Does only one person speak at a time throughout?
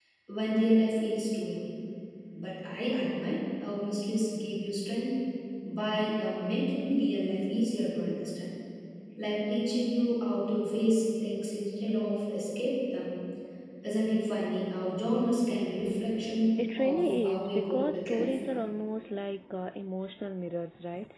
No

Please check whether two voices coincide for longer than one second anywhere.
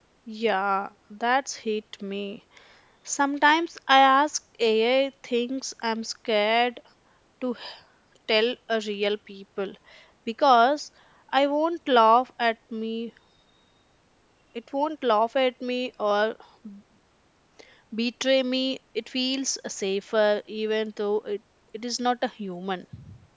No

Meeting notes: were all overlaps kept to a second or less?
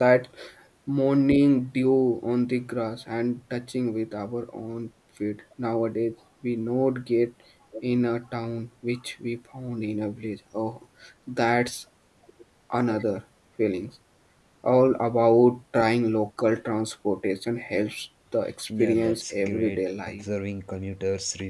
No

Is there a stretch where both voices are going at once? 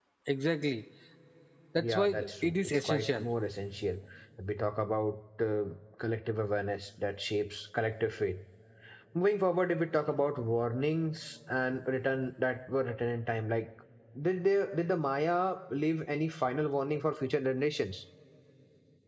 Yes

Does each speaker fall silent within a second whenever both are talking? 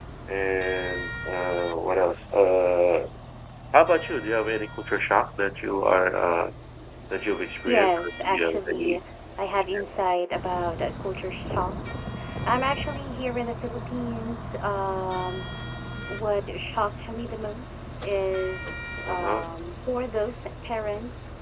No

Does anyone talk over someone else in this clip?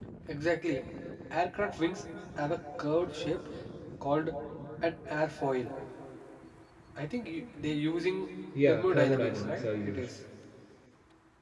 Yes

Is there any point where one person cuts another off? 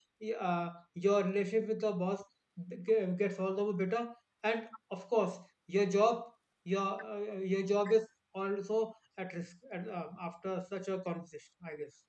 No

